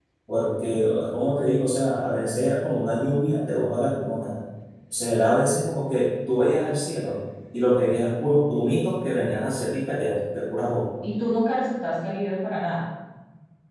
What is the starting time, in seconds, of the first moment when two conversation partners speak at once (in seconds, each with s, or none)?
none